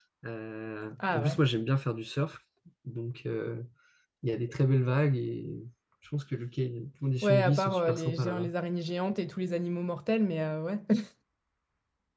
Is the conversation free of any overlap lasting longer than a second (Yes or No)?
No